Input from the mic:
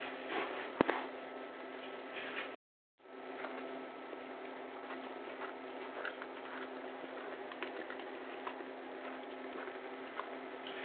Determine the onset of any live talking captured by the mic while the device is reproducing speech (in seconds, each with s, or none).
none